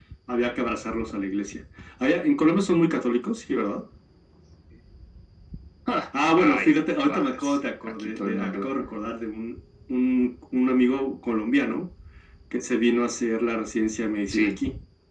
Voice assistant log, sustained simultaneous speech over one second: present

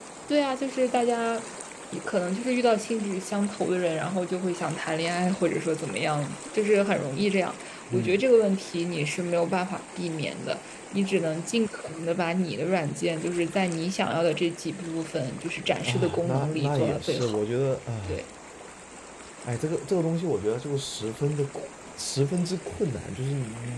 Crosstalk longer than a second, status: present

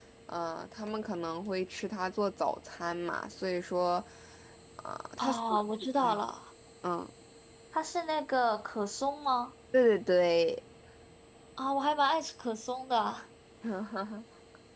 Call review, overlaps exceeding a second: none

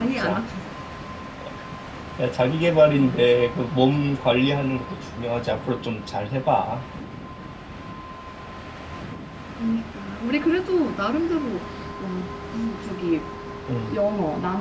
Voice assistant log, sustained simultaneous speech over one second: none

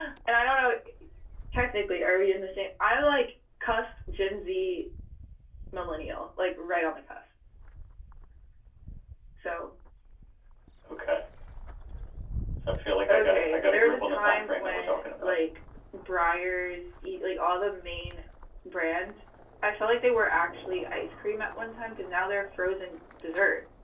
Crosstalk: present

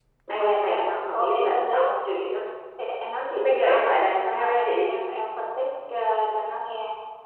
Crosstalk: present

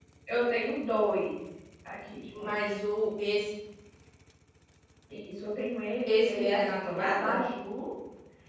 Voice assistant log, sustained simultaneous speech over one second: present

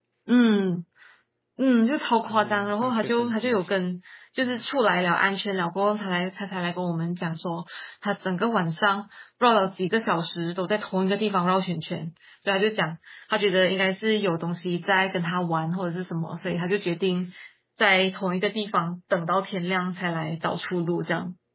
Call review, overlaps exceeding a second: present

